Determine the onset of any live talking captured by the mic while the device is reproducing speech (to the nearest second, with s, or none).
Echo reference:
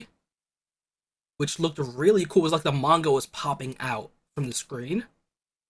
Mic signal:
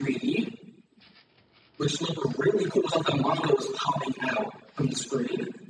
none